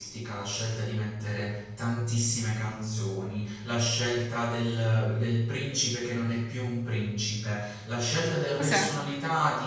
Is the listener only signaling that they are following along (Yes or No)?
Yes